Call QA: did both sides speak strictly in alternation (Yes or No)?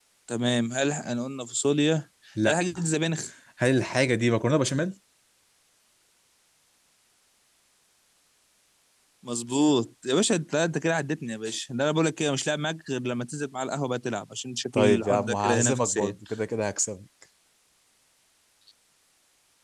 No